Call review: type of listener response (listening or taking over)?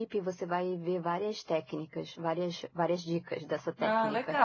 taking over